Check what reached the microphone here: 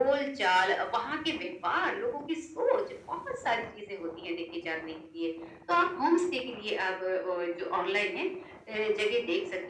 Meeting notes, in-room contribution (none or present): none